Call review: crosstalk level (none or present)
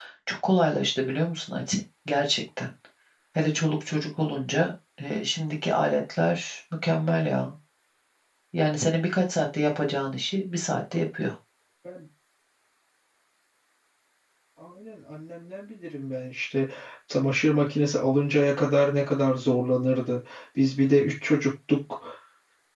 none